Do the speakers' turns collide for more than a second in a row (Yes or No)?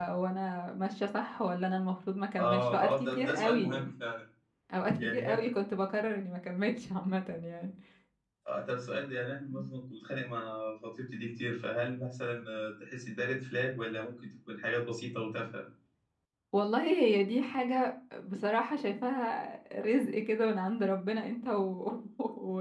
Yes